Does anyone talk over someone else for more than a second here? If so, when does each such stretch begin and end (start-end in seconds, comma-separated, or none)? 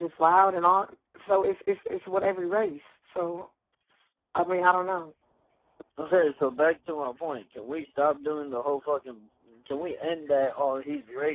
none